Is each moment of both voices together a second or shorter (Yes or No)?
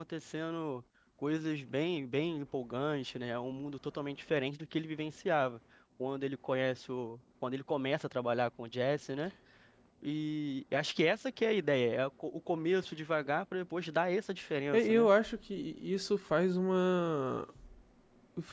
Yes